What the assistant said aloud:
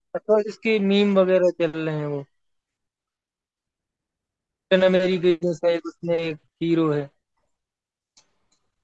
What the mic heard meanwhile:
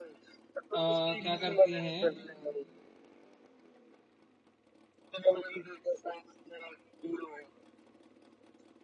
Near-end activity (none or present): present